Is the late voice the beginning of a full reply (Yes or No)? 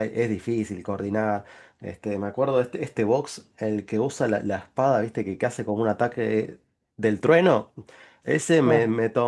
No